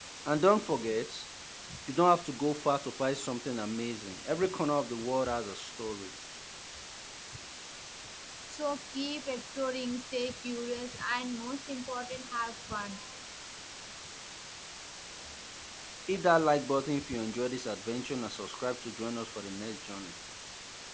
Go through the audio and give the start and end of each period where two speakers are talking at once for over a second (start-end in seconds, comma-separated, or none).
none